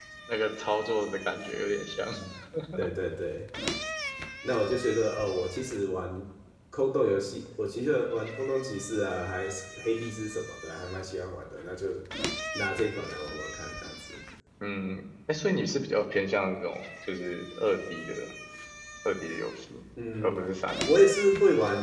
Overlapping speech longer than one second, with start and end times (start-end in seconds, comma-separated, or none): none